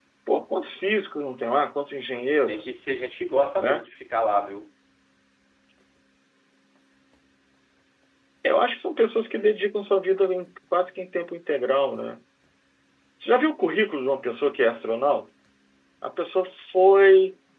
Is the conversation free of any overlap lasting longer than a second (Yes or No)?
Yes